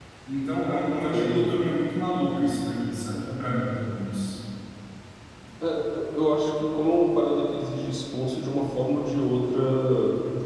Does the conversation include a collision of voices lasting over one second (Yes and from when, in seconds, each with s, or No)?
No